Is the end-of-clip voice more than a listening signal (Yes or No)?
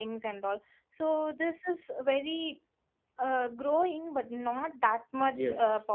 Yes